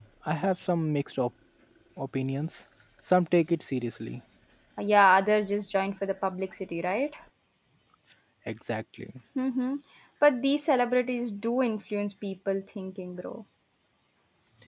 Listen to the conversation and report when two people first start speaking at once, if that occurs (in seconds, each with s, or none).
none